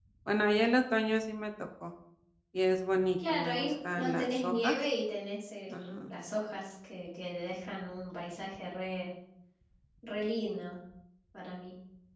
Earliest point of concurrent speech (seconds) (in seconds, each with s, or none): 3.3 s